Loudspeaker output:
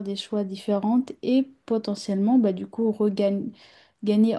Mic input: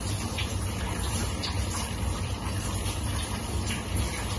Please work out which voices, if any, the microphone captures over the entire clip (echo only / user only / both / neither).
neither